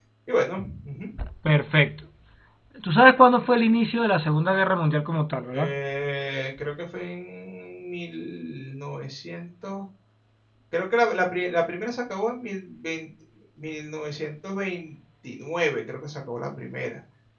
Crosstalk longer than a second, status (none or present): none